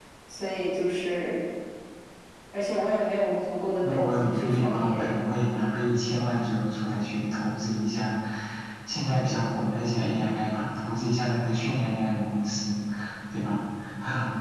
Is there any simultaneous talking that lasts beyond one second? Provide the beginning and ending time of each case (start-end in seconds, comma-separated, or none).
3.8-5.2